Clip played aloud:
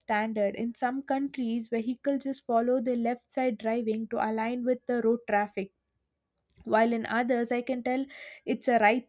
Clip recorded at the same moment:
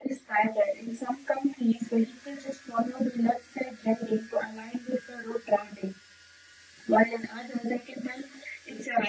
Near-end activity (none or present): none